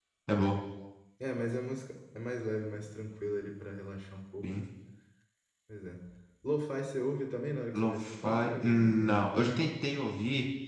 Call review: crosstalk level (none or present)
present